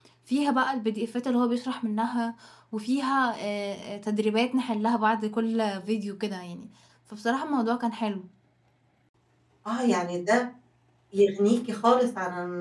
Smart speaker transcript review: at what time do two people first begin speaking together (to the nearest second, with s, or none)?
none